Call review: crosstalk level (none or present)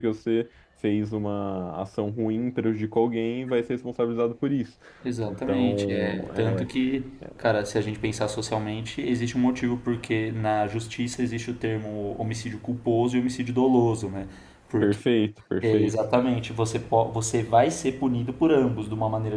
present